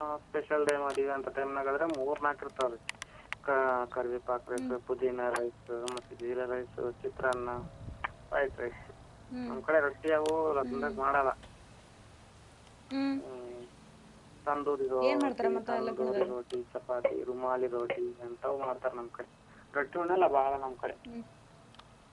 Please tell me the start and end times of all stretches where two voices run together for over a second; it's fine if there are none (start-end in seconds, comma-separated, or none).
15.1-16.3